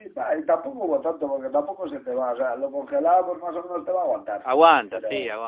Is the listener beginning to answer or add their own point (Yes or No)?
Yes